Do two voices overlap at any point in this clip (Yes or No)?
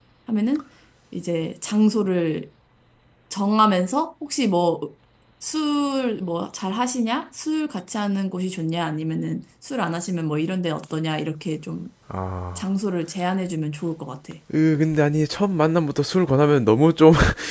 No